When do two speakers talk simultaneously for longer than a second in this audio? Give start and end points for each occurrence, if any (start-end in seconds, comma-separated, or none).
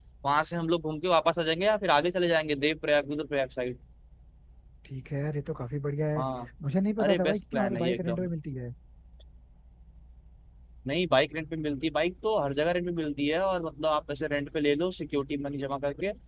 7.0-8.2